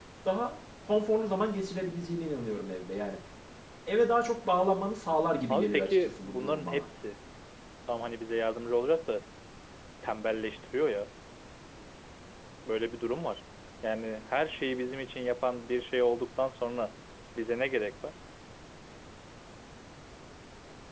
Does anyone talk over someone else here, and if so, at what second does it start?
5 s

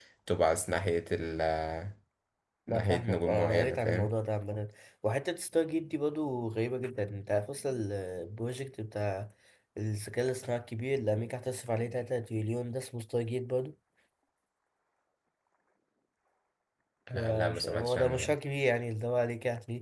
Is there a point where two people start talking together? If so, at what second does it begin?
3 s

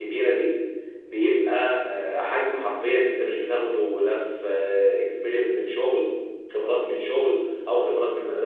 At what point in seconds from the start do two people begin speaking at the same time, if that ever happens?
none

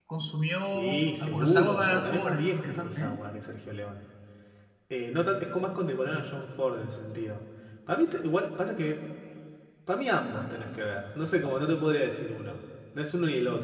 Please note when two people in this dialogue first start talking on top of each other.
1 s

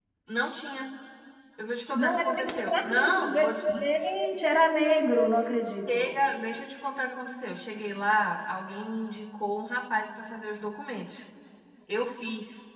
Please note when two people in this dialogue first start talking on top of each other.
2 s

